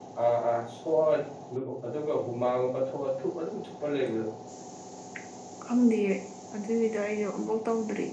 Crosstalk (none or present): none